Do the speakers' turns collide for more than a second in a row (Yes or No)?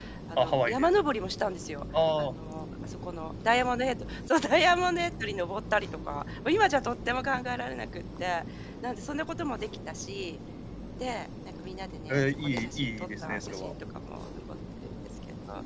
Yes